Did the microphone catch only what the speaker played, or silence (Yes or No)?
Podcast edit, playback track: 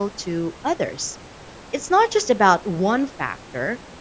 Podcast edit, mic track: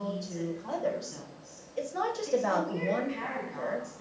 No